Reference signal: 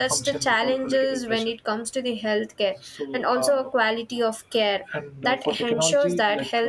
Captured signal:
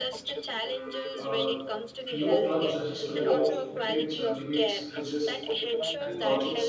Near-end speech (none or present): present